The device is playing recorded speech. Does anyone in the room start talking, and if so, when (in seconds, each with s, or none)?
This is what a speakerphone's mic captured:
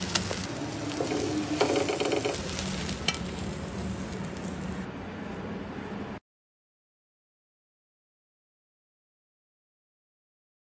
none